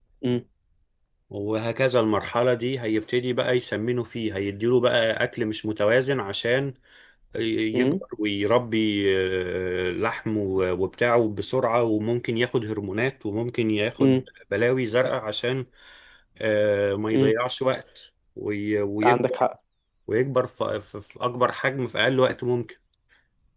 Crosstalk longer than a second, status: none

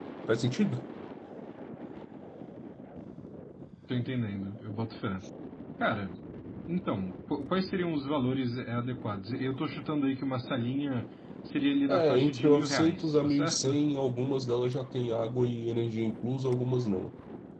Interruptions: present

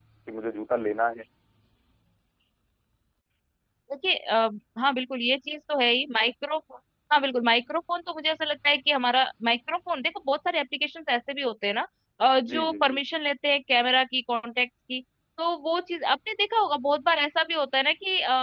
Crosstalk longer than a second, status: none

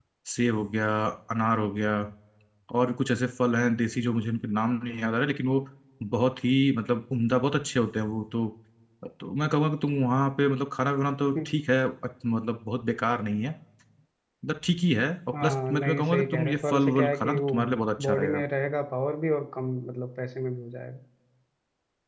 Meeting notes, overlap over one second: present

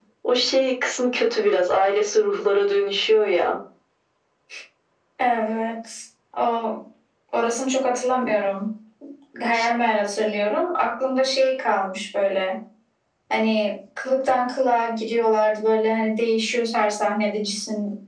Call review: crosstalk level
none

